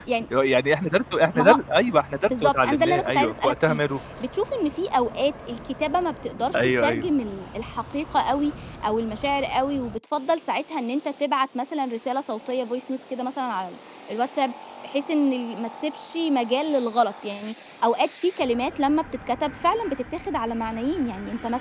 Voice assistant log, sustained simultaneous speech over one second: present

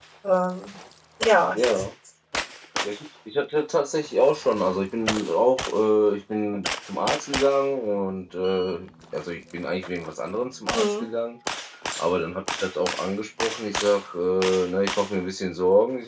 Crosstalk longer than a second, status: none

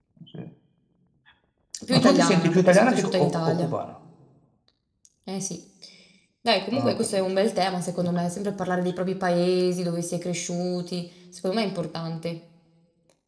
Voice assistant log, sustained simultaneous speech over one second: present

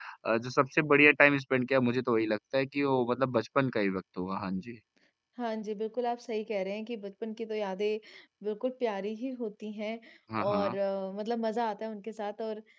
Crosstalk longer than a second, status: none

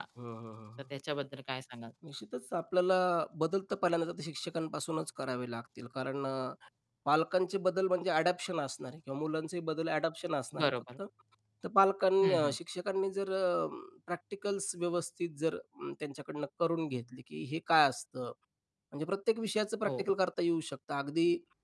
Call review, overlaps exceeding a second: none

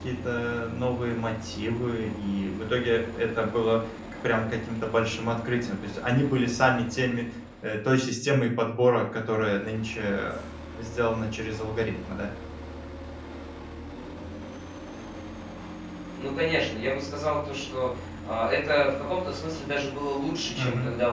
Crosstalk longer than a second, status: none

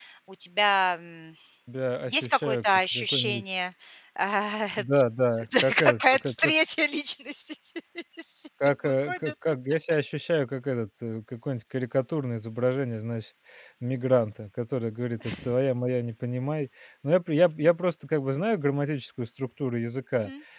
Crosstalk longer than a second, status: present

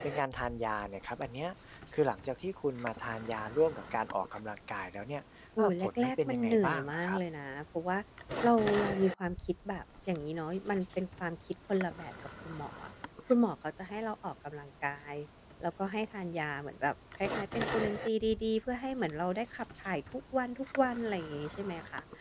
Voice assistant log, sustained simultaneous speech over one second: present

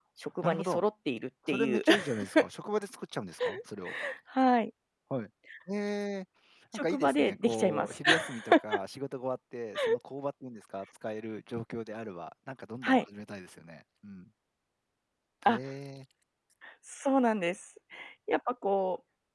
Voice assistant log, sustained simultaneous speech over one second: present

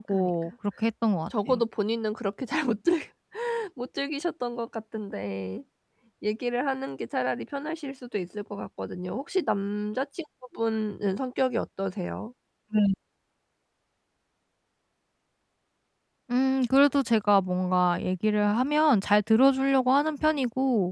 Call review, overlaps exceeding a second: none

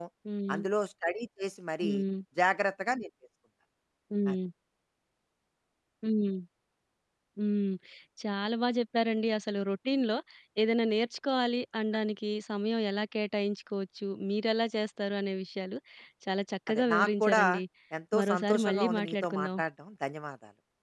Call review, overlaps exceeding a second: present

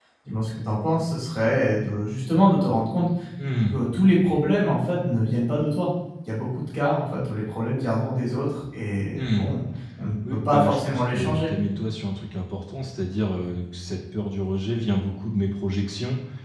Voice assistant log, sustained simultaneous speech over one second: present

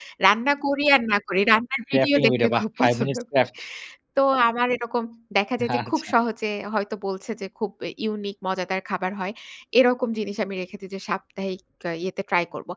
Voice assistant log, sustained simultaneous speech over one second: present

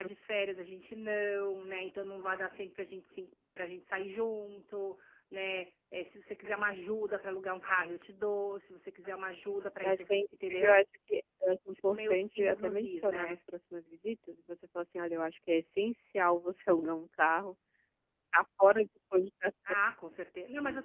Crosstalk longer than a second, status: present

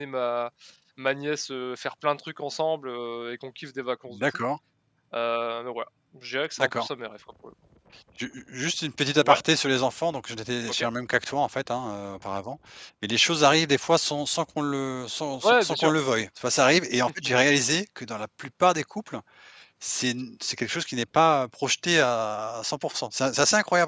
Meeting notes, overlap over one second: none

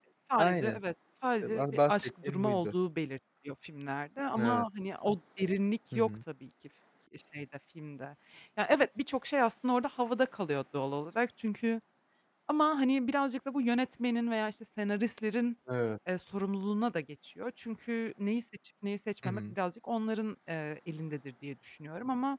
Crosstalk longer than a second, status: present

